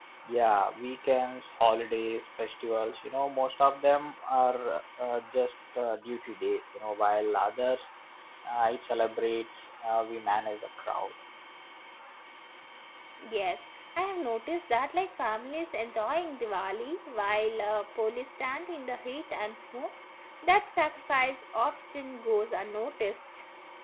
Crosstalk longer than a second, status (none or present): none